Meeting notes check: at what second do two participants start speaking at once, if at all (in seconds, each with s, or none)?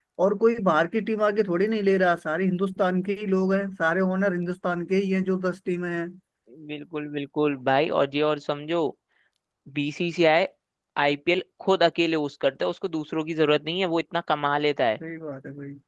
none